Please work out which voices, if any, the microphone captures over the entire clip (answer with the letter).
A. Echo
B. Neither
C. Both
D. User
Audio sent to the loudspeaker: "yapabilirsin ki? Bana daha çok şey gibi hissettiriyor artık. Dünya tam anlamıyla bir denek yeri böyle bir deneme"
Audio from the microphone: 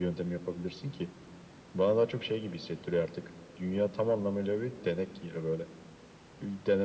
A